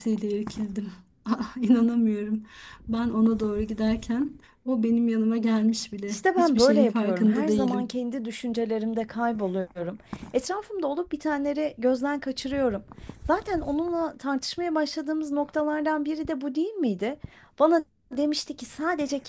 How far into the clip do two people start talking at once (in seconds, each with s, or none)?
6.1 s